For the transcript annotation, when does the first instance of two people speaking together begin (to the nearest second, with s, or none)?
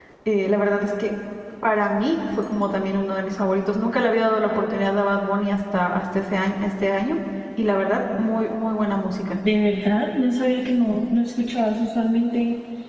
none